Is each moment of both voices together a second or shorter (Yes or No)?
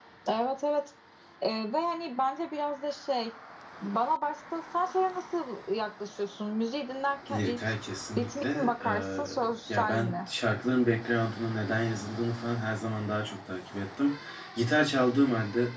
No